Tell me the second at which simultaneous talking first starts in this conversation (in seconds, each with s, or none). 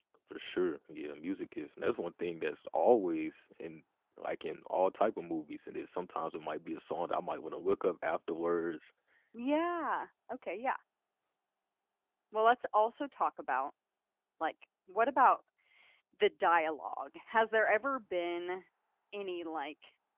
none